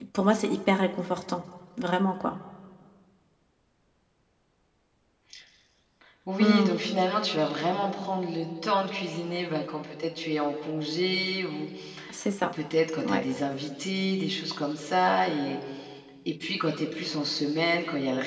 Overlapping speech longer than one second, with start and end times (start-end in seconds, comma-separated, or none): none